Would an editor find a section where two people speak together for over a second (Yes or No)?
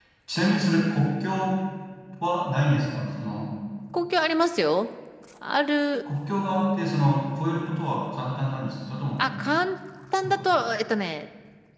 No